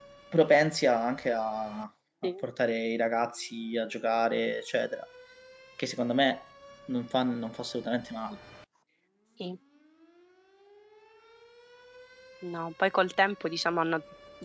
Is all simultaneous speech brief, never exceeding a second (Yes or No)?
Yes